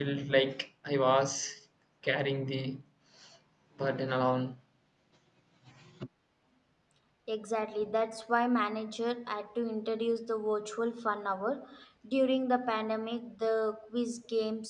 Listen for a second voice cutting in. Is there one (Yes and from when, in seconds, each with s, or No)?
No